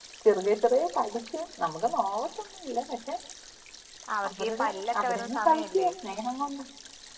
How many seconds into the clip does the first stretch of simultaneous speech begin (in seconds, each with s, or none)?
4.3 s